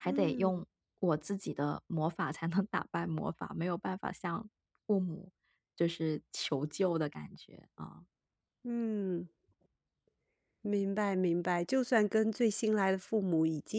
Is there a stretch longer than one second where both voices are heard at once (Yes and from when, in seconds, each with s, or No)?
No